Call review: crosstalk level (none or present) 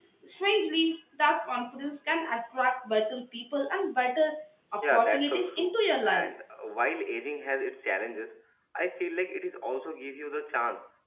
present